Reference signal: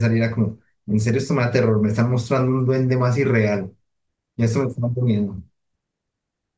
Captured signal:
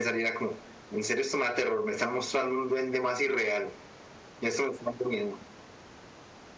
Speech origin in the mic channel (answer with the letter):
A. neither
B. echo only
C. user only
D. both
B